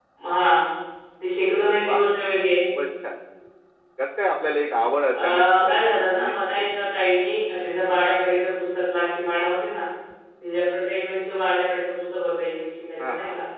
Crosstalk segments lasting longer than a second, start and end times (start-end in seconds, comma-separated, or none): 5.1-6.6